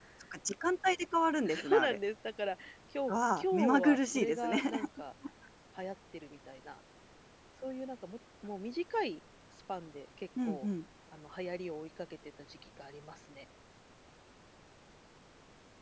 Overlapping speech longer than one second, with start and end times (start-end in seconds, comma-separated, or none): 3.1-4.6